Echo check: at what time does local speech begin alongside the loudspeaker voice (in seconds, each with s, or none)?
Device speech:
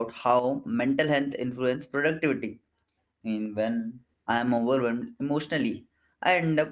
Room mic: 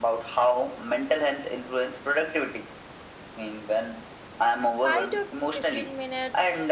4.7 s